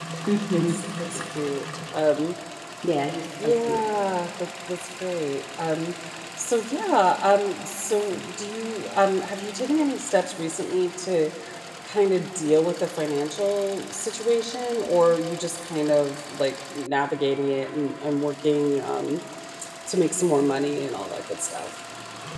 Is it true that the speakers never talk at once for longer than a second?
Yes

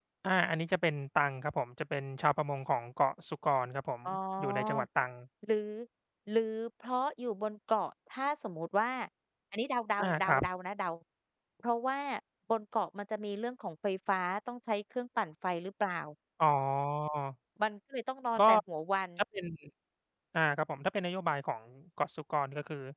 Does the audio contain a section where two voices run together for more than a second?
No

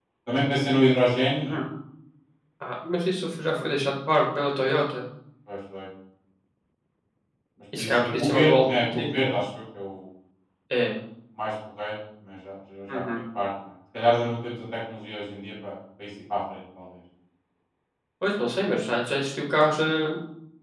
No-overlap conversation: No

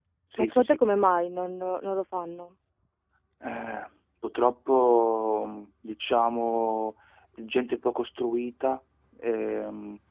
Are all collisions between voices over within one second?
Yes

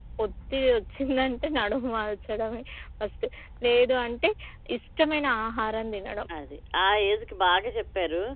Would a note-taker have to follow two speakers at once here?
No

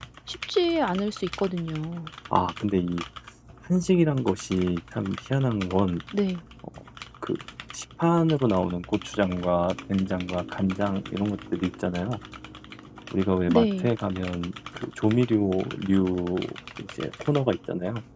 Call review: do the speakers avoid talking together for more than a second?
Yes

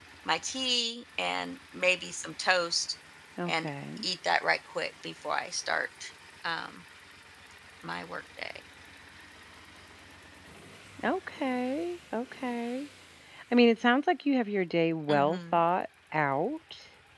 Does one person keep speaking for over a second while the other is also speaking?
No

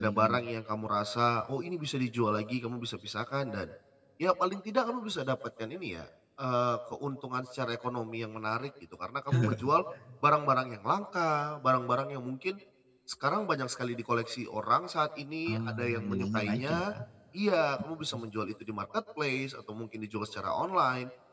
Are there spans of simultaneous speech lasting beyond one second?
Yes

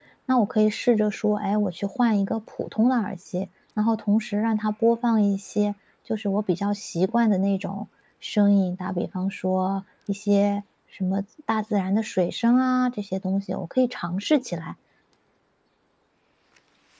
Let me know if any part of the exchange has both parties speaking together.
No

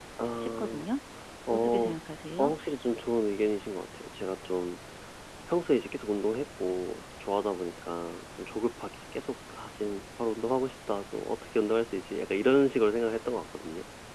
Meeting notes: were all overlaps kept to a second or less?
Yes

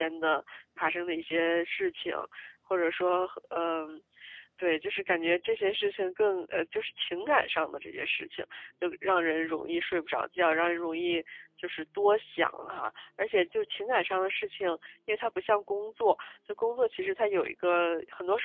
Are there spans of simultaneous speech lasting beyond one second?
No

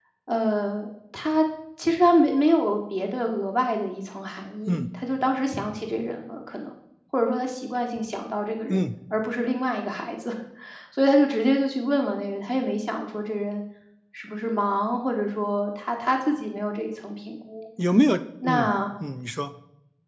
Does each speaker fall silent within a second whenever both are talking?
Yes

